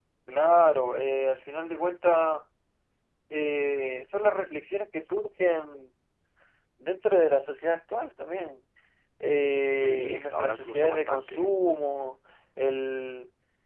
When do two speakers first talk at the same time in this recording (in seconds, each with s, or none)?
9.8 s